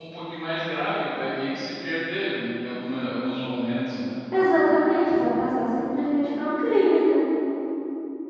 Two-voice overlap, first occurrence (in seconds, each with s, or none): none